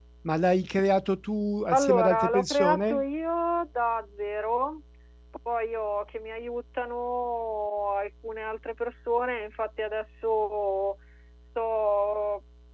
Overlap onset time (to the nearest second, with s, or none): 2 s